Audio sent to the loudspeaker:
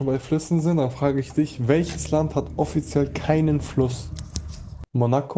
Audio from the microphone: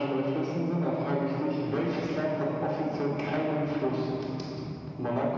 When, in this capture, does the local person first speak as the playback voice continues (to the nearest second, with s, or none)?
none